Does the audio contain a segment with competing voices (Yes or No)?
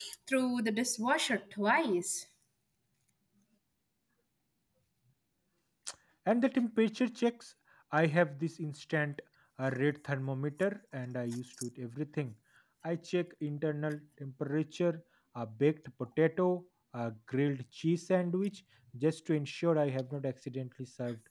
No